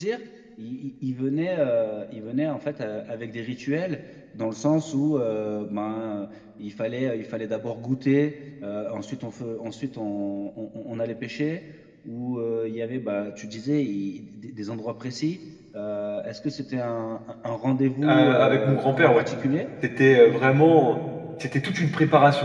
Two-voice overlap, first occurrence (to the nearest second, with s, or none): 18 s